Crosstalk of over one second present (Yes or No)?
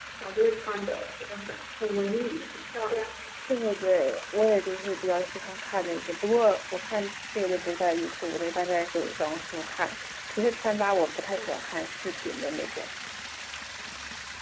No